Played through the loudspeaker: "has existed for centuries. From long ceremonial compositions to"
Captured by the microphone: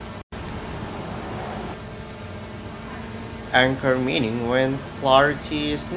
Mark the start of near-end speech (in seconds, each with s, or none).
3.5 s